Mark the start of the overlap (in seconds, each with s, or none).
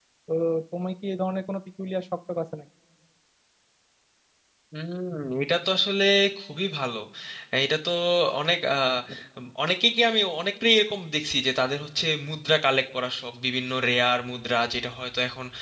none